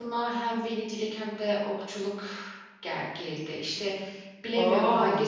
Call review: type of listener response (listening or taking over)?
listening